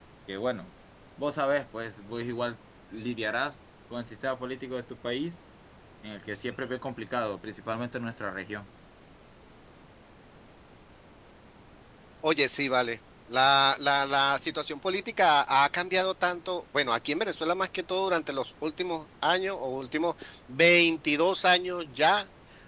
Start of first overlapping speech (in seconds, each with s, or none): none